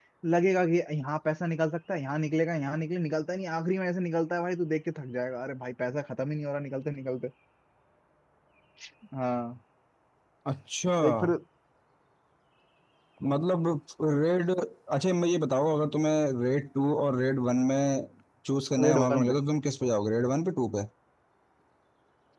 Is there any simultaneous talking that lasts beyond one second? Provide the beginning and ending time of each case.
none

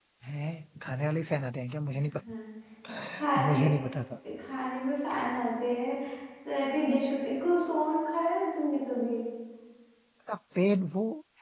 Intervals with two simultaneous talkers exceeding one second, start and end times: none

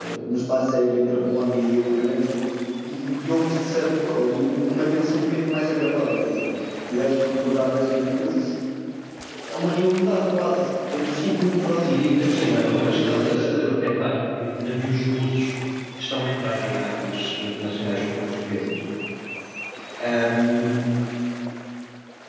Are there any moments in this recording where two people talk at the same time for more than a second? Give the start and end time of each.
11.9-13.7

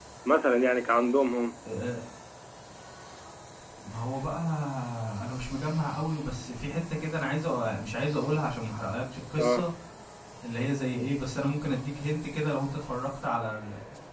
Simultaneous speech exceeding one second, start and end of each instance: none

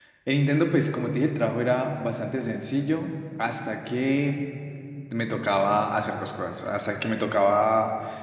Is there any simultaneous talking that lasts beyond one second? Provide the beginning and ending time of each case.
none

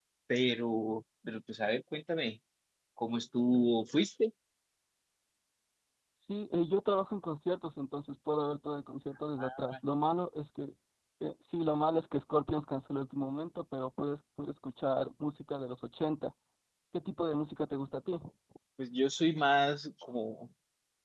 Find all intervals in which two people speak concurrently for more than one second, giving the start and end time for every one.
none

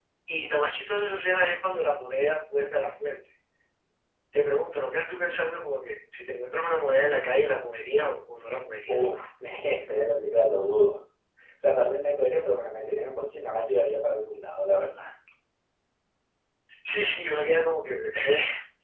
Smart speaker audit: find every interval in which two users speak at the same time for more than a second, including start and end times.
none

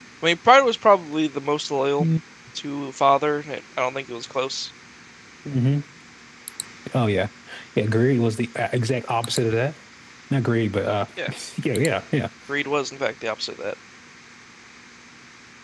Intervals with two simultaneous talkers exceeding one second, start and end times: none

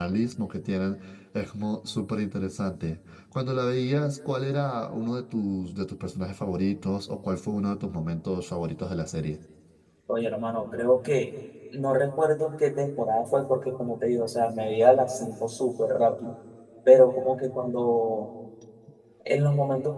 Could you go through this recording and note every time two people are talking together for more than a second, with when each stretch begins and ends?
none

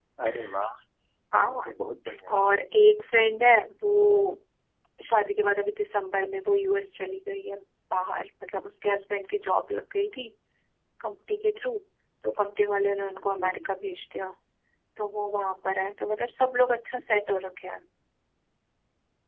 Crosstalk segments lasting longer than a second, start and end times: none

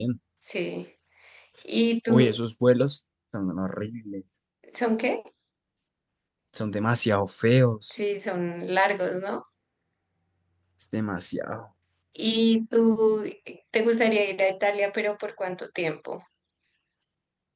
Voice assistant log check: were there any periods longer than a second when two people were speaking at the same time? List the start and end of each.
none

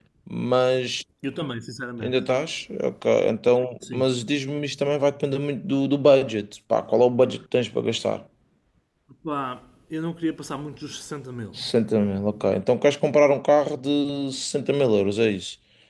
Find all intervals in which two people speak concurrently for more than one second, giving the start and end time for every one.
none

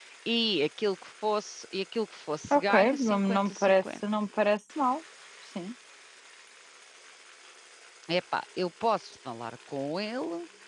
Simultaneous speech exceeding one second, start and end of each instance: 2.5-3.8

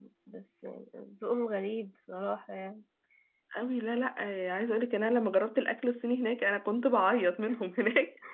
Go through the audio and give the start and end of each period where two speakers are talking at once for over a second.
none

